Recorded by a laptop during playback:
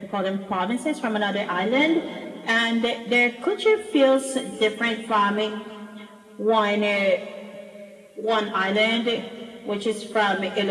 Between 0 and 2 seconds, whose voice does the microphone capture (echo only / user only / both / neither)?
echo only